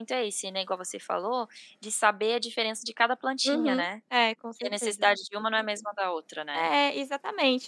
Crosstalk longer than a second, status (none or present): none